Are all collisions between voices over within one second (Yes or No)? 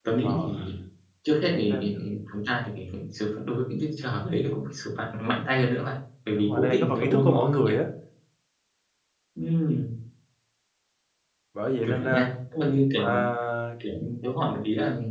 No